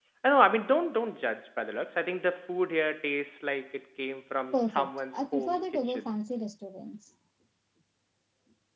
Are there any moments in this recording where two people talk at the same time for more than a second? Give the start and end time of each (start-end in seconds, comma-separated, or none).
4.5-6.1